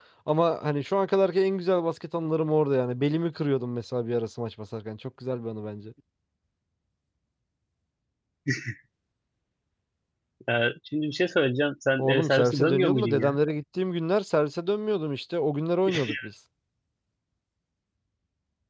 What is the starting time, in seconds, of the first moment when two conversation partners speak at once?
12.0 s

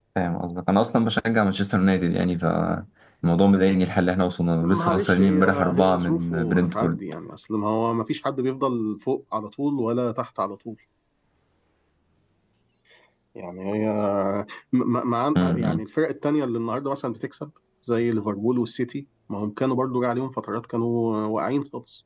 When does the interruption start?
4.6 s

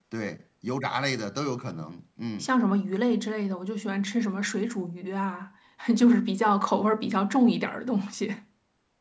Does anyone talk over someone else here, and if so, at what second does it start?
none

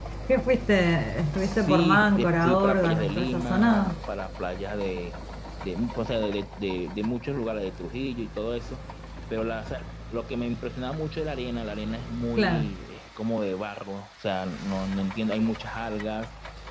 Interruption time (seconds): 1.4 s

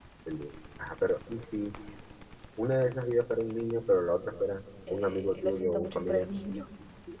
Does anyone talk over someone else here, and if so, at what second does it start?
4.9 s

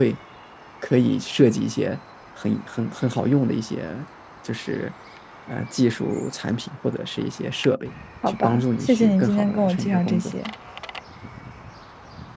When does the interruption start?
8.2 s

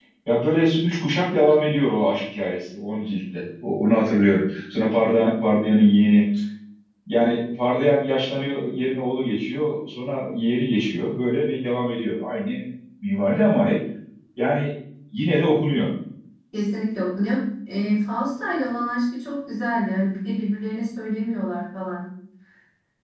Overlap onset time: none

